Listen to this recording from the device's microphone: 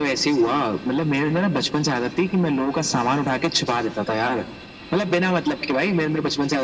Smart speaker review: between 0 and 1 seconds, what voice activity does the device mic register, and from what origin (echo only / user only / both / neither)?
echo only